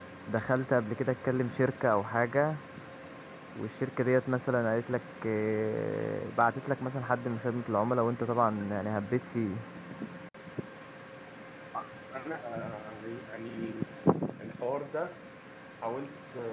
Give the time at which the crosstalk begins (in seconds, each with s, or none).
none